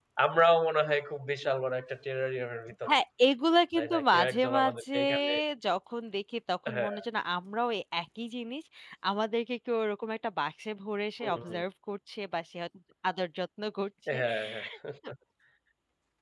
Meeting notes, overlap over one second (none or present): present